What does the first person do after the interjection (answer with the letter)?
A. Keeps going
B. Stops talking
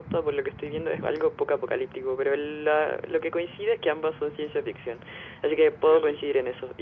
A